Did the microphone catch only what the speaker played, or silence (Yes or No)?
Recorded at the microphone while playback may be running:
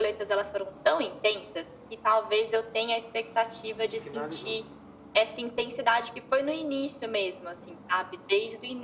No